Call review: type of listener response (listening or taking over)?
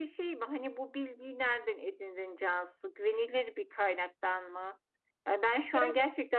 listening